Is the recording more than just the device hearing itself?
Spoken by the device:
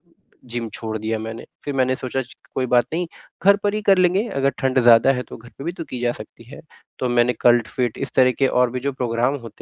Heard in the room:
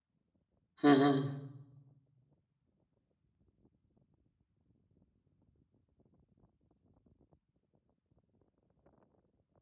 Yes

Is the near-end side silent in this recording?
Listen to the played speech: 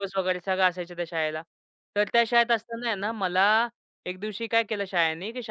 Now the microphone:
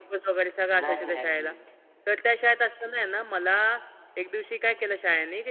No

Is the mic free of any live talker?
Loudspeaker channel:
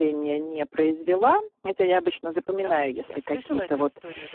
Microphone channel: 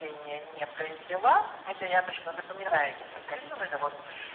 Yes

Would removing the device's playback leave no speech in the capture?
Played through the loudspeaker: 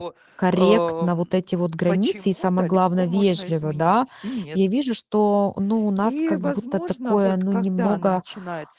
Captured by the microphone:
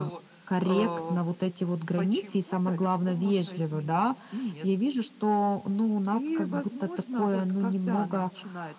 Yes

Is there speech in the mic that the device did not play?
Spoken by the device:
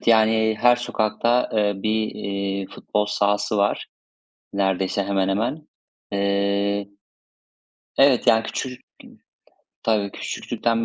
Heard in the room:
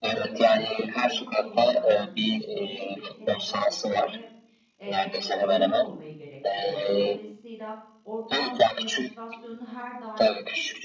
Yes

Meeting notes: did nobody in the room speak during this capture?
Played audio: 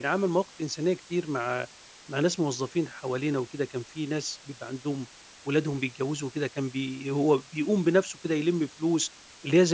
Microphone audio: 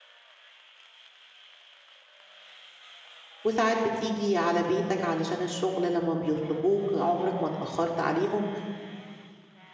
No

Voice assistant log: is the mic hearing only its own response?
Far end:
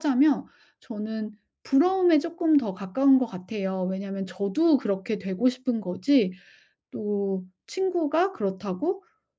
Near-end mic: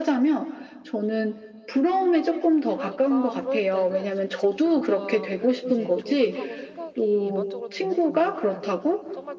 No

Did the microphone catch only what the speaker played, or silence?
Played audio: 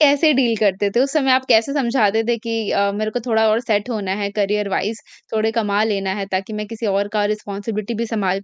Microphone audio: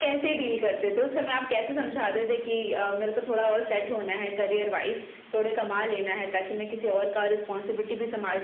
Yes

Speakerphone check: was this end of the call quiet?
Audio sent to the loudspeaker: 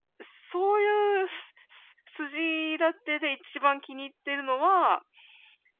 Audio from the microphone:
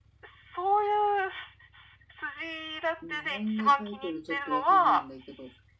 No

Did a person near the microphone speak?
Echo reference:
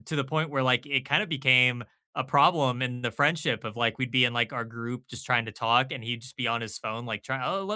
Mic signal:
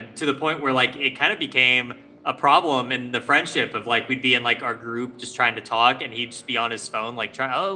No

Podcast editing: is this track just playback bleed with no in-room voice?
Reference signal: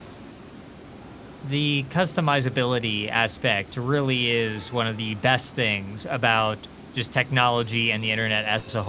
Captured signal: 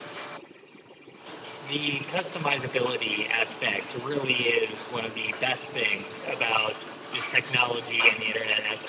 Yes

